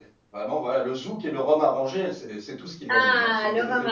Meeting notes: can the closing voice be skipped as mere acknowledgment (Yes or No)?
No